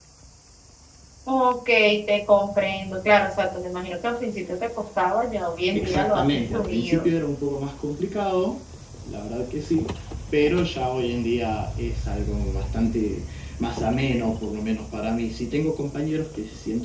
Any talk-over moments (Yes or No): Yes